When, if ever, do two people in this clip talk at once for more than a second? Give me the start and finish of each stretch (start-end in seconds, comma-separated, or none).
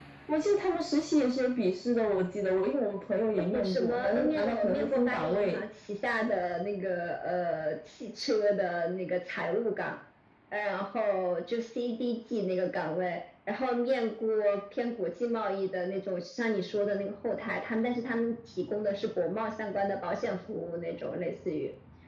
3.5-5.6